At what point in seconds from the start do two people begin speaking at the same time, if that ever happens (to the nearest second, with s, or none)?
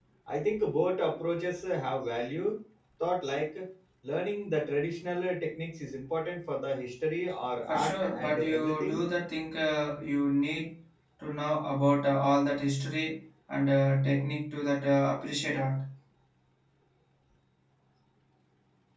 8 s